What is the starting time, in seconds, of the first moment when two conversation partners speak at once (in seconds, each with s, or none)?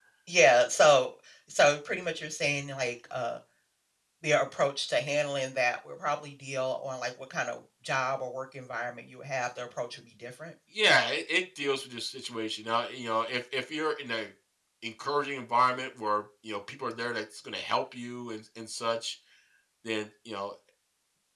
none